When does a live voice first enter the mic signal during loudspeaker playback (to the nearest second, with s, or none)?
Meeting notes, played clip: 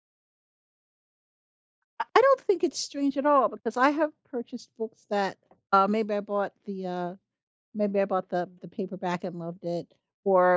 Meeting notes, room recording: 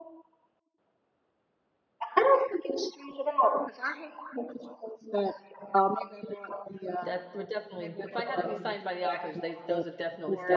7 s